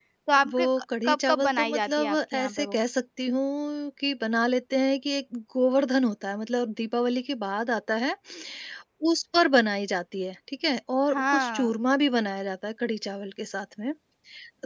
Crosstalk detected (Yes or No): Yes